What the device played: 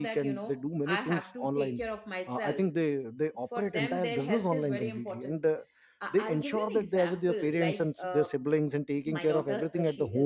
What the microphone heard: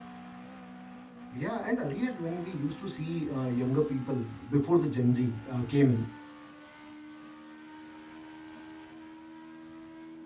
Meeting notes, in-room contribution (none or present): present